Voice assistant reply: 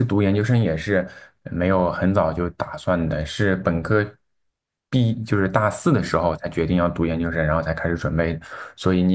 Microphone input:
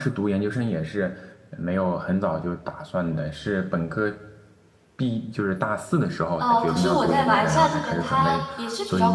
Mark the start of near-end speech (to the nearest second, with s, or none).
6 s